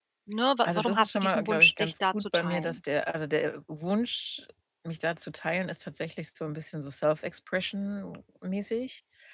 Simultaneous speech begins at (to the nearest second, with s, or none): 1 s